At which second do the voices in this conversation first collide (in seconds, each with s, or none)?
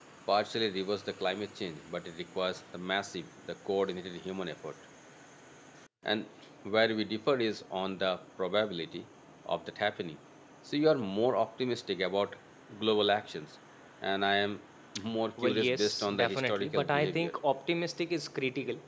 15.4 s